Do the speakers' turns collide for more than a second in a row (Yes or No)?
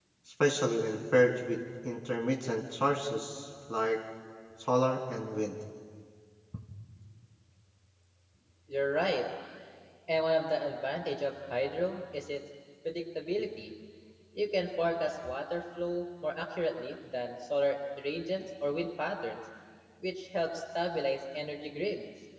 No